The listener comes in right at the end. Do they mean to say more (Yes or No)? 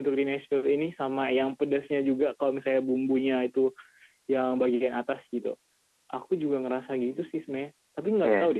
No